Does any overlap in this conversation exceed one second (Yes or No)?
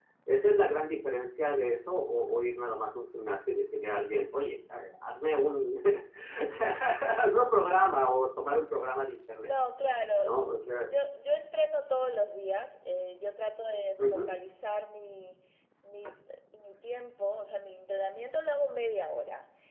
No